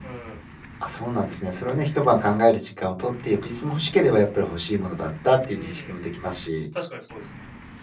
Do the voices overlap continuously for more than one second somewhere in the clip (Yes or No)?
No